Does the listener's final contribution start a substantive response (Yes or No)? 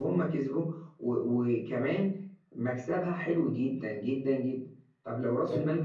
No